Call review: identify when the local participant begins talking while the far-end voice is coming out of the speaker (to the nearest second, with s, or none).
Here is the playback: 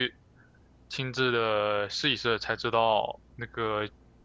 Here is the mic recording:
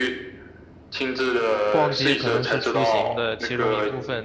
2 s